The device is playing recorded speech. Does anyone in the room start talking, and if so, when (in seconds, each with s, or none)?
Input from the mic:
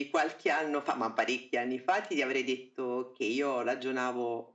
none